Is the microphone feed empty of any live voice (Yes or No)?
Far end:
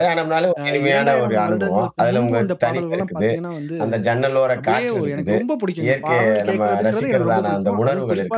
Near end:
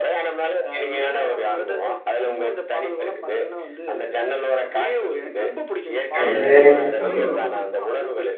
No